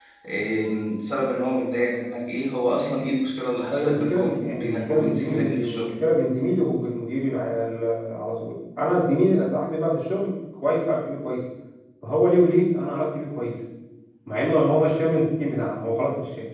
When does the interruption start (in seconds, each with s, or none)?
3.7 s